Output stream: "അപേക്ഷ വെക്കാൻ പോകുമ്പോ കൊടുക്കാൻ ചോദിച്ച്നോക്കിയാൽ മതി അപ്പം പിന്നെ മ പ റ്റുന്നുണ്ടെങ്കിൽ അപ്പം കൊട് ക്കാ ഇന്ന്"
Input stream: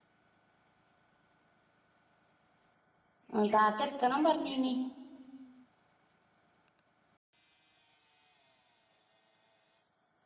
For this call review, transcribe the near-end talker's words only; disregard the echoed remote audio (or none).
ആ താത്ത എടുക്കണം പറഞ്ഞീന്നി....